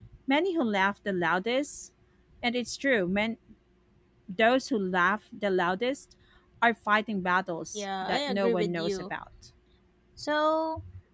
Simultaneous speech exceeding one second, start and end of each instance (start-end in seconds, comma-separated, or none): 7.8-9.1